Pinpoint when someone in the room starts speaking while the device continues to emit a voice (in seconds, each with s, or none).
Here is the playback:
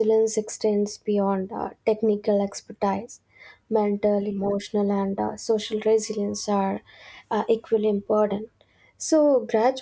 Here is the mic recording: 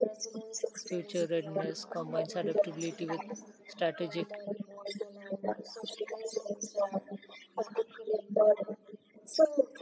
0.8 s